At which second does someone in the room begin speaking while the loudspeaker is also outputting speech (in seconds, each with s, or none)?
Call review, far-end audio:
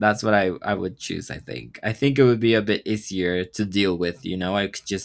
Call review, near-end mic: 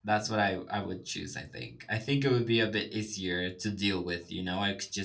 none